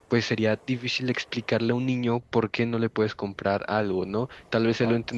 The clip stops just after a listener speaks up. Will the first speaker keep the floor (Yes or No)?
Yes